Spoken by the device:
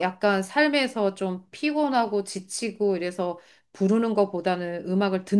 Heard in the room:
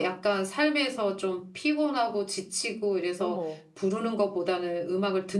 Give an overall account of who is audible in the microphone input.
both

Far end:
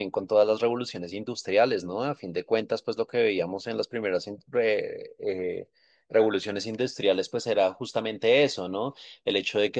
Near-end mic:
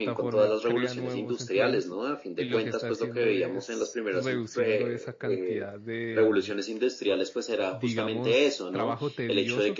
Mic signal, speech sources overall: both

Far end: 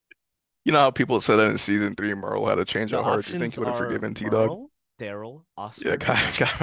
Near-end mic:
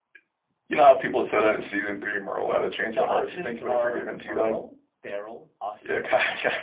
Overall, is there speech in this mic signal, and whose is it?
echo only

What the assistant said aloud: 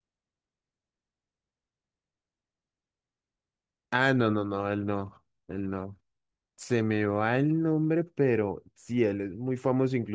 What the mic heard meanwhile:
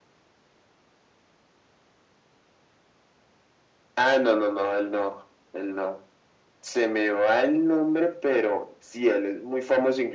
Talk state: echo only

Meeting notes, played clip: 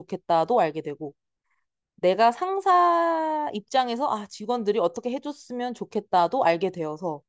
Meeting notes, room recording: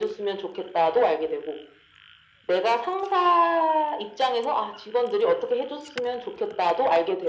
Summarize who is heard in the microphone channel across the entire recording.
echo only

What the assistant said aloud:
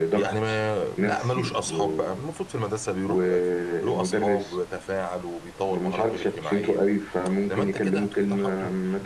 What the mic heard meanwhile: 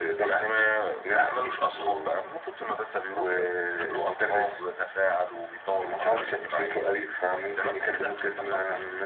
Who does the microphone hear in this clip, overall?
echo only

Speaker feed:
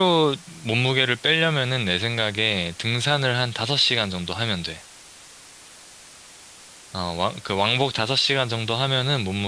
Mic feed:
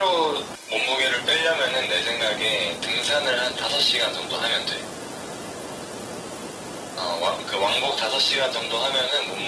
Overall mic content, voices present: echo only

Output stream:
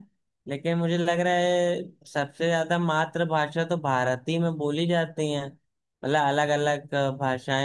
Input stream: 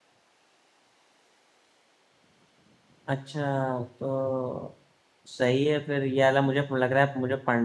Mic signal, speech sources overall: user only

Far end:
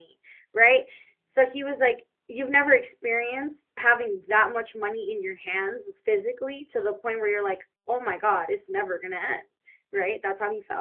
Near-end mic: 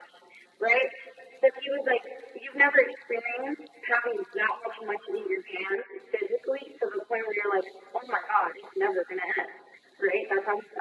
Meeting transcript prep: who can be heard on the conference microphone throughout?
echo only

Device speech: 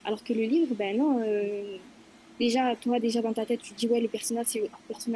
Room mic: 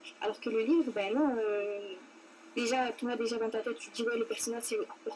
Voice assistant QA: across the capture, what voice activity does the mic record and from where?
echo only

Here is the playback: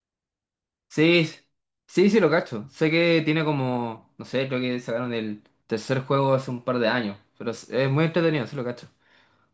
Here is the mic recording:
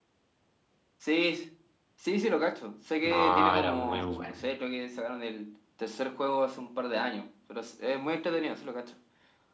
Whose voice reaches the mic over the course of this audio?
both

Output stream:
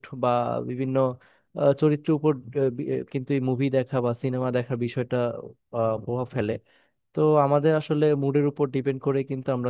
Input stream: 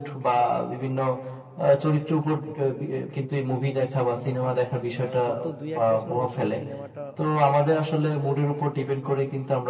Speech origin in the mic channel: both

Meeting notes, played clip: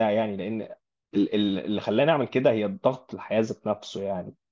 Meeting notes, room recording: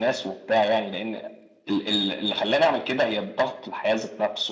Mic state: echo only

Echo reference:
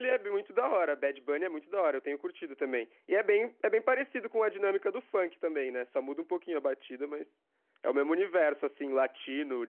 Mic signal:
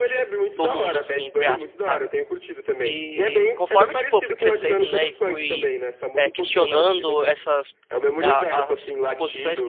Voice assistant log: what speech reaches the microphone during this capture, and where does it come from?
both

